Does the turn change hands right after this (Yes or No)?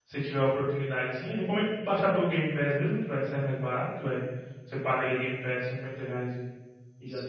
No